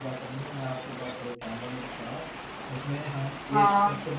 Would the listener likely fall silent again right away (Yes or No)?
Yes